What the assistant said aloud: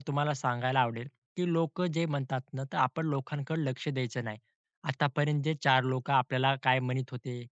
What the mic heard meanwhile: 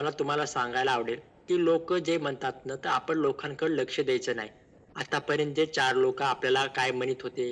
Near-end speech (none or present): none